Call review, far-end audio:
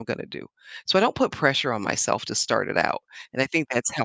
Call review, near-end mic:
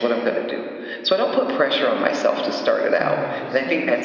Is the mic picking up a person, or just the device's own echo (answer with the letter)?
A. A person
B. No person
A